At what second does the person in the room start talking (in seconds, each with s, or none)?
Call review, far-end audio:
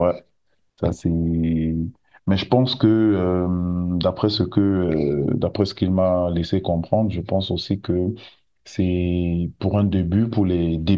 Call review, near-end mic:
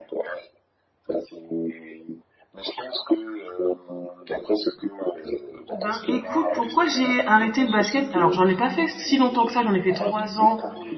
5.7 s